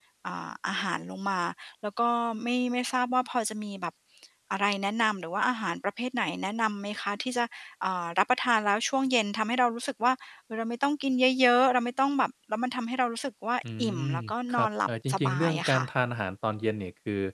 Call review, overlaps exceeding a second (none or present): present